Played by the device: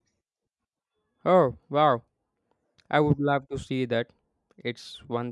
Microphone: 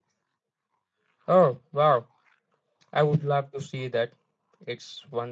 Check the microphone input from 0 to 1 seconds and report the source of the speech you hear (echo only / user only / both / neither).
neither